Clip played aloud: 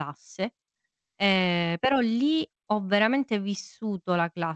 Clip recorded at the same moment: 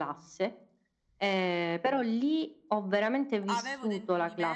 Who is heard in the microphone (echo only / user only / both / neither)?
both